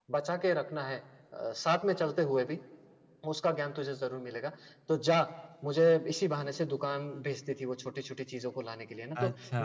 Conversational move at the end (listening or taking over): listening